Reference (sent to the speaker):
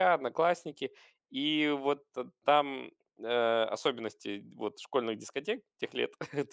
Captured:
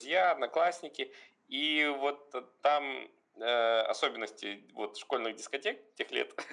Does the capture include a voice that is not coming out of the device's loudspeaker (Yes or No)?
No